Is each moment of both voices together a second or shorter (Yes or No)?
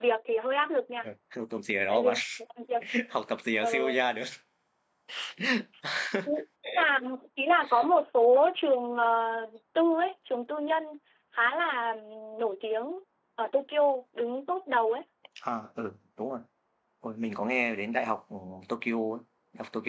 Yes